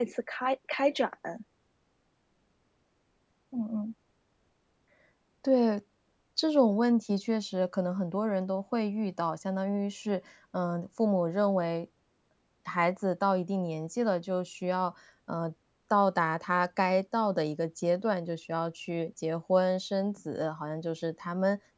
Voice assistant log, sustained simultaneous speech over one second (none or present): none